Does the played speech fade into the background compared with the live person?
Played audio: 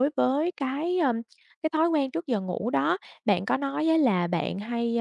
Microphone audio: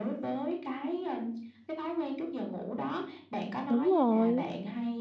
Yes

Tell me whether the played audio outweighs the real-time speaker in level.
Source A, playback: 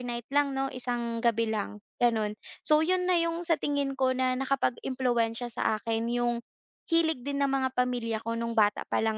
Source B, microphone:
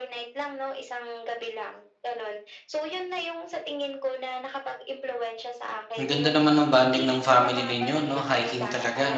No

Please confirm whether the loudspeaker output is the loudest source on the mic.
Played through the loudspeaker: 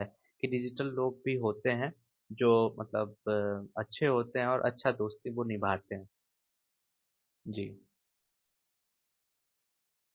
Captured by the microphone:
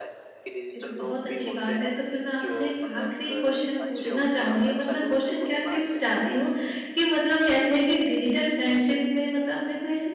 No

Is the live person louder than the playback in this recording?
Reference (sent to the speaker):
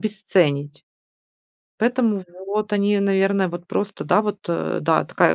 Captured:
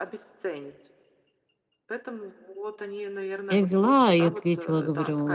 Yes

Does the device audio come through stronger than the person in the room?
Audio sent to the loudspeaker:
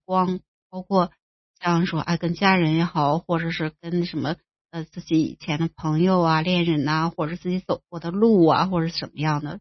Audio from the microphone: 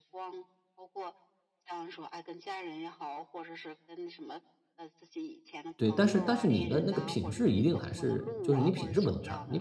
No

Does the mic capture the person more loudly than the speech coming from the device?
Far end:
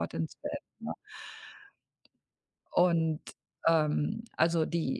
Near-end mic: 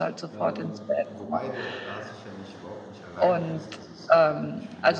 No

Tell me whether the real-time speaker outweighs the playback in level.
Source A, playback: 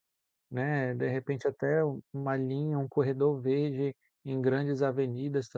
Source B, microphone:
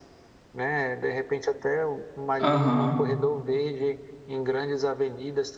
Yes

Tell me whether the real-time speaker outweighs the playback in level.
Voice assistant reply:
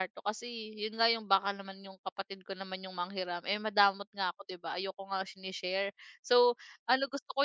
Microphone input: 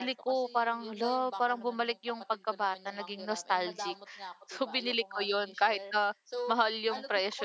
Yes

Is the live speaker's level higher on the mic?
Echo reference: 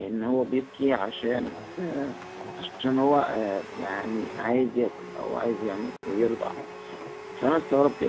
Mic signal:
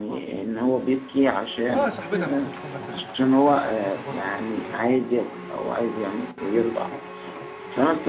No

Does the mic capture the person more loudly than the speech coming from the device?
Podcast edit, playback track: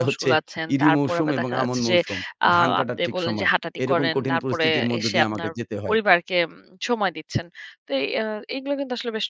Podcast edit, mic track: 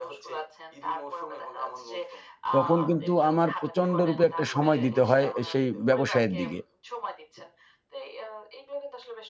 Yes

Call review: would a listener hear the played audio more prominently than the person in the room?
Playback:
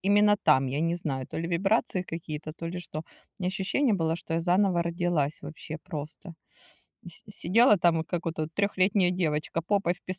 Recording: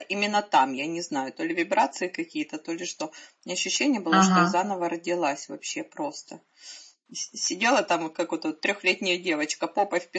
No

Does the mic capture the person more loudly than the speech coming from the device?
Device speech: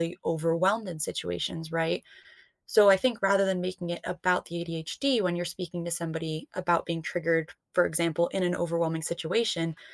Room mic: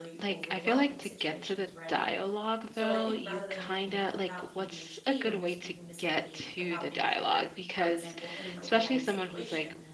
Yes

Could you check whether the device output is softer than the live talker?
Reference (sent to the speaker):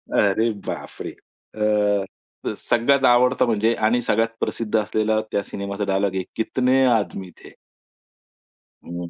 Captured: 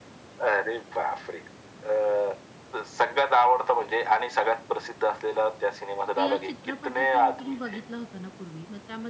No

